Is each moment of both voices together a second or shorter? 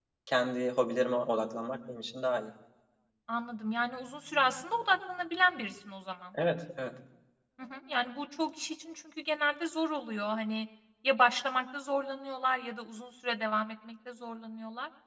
Yes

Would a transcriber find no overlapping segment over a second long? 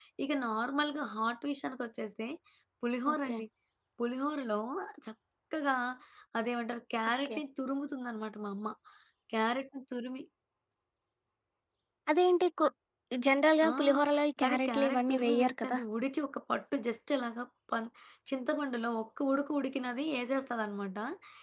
No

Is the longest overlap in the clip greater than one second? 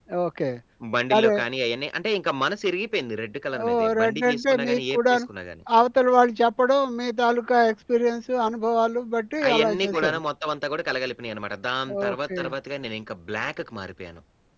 Yes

